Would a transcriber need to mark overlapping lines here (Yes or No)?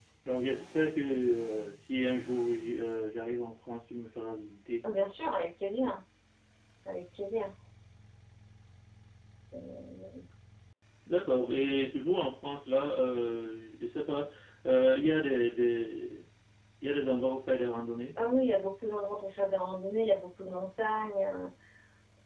No